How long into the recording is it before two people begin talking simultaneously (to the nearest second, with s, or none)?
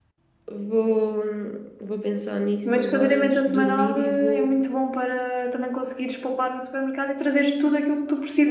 3 s